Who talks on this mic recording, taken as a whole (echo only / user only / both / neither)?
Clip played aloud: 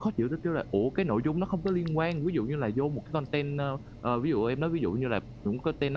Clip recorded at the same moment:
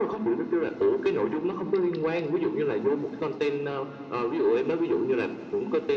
echo only